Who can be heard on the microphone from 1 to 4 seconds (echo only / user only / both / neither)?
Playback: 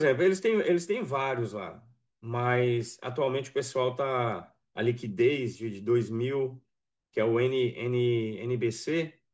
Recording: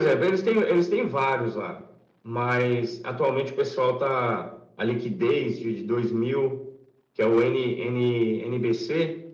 echo only